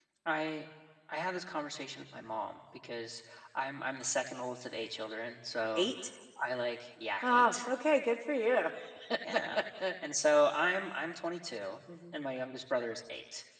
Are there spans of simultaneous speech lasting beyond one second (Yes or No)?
No